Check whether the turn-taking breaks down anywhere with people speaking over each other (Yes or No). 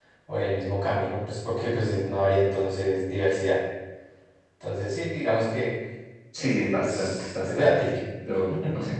Yes